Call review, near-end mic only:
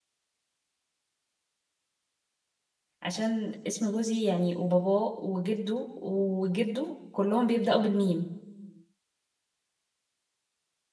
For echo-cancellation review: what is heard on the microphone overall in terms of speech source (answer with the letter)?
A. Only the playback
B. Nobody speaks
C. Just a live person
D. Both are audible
C